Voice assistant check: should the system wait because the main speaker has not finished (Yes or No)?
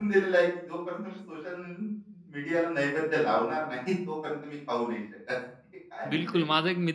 No